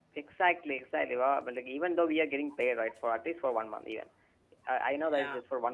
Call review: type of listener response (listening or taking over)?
listening